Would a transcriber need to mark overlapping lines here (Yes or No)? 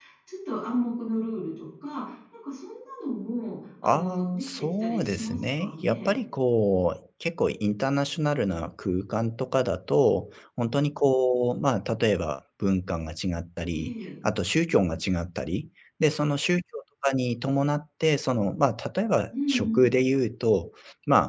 Yes